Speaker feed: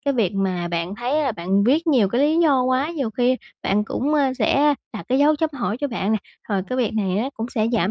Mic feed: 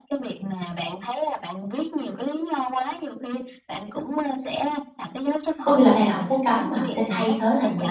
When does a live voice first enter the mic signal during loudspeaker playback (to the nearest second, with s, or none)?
6 s